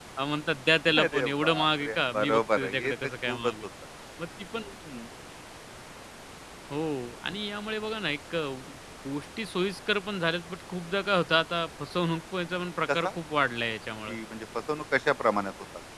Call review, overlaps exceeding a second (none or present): present